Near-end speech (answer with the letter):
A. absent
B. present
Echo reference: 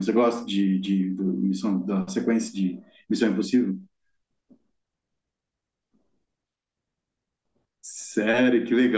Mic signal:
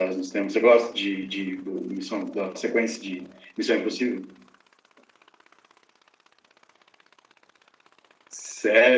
A